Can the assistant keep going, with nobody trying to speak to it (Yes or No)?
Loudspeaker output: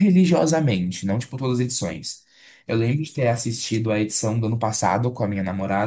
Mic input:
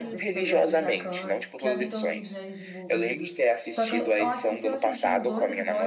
No